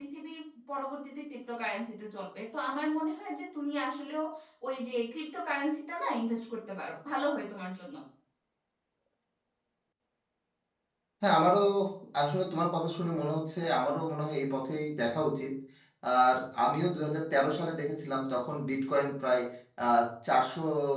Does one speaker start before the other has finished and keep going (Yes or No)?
No